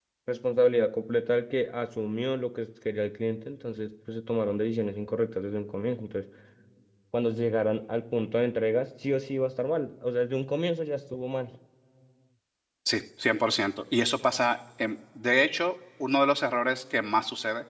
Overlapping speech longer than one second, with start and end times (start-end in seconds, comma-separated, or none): none